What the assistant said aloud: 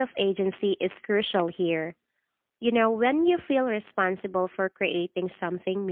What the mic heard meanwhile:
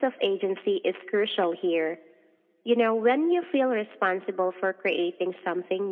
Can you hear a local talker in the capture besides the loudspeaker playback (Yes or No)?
No